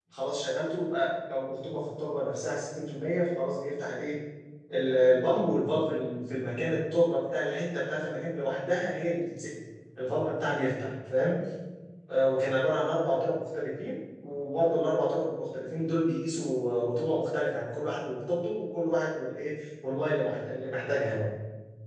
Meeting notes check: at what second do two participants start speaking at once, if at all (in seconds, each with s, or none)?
none